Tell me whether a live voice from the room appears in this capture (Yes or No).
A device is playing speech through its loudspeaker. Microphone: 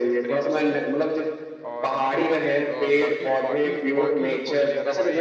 Yes